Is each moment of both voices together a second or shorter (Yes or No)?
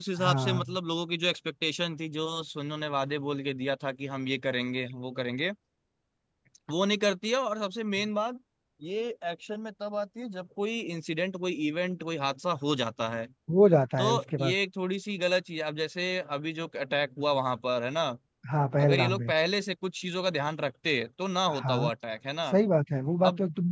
Yes